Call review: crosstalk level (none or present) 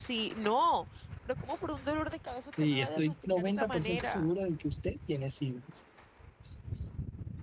present